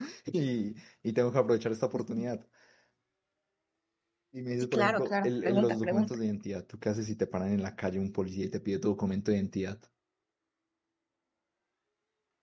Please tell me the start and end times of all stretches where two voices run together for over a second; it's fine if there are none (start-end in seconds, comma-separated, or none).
4.6-6.2